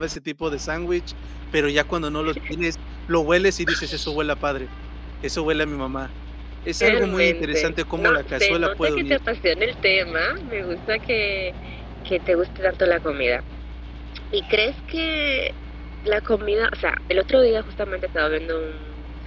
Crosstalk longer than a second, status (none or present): present